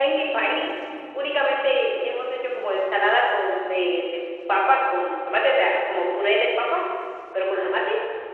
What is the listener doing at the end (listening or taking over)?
listening